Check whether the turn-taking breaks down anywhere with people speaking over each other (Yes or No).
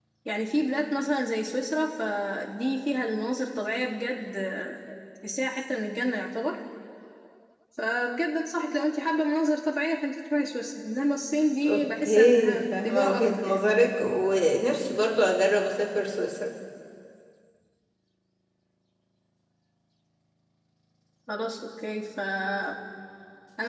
Yes